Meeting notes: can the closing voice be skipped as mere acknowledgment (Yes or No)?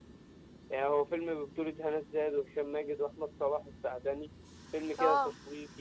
Yes